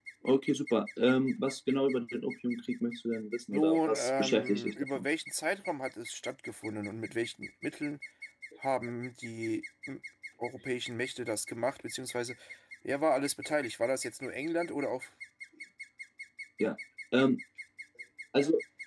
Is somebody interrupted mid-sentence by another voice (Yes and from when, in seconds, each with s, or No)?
Yes, from 3.5 s